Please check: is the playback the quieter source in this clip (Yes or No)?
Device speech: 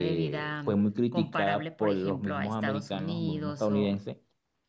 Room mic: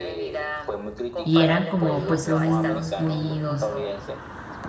Yes